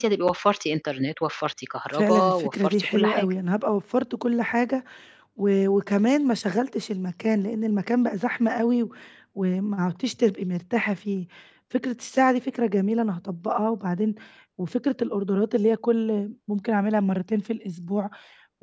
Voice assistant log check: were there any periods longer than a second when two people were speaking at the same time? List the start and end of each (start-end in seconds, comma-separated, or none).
1.9-3.3